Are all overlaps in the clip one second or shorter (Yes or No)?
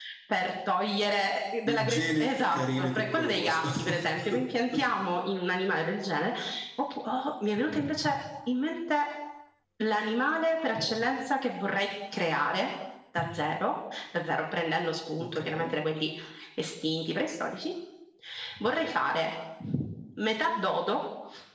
No